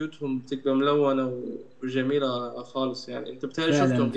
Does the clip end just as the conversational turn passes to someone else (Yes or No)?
Yes